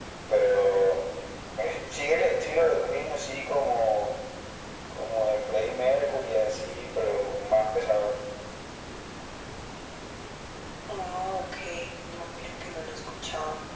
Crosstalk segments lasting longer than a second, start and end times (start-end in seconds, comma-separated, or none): none